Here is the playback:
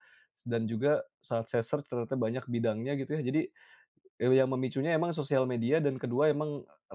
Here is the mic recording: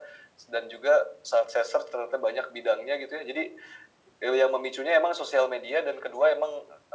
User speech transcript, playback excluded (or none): none